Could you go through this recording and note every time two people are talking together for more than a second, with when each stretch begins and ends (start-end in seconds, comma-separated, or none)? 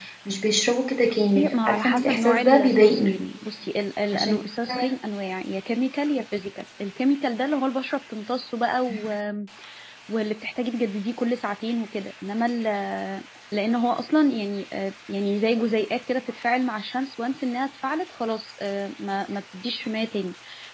1.1-3.2